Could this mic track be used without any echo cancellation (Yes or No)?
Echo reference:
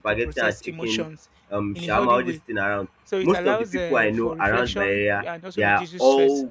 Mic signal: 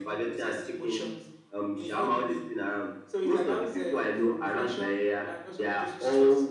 No